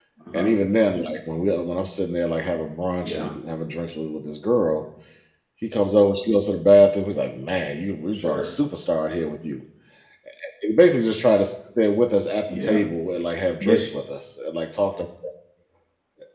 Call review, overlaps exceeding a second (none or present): none